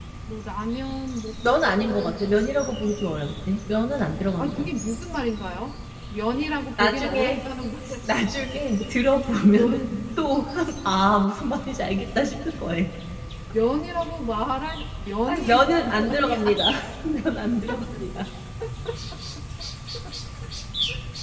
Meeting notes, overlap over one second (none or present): present